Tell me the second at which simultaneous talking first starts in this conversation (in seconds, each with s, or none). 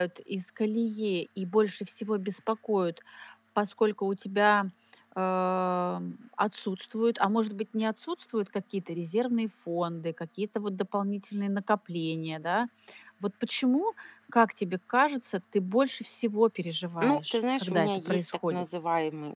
17.0 s